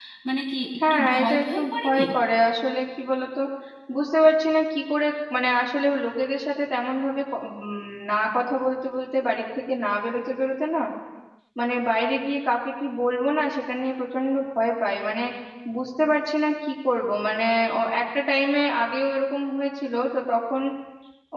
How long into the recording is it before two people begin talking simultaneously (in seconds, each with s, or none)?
0.8 s